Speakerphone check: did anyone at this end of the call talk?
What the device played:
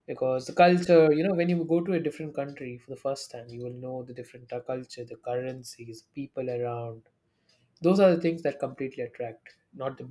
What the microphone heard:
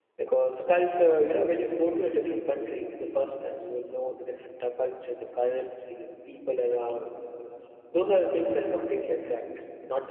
No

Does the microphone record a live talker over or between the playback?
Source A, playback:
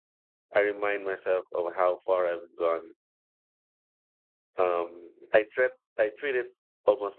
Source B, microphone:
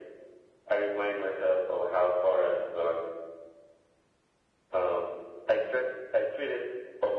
No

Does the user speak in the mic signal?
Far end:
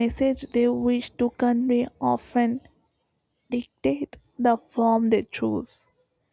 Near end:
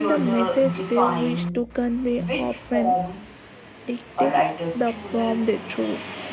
Yes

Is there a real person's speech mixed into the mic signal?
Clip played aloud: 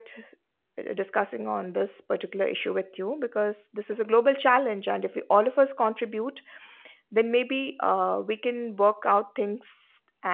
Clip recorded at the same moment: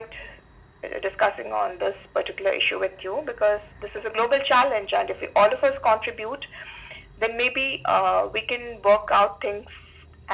No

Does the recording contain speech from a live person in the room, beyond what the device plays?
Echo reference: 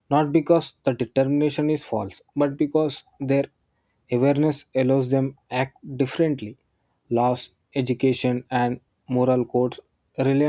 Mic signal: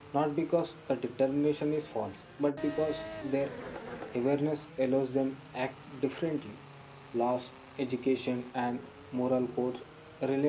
No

